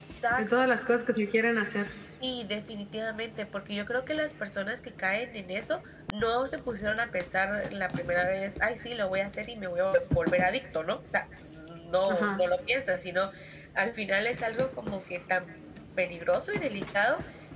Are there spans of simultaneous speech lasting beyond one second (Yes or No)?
No